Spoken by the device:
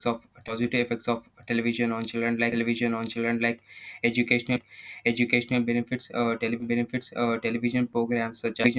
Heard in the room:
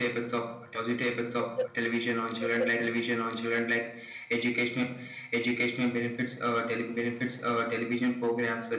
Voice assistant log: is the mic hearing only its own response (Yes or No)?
No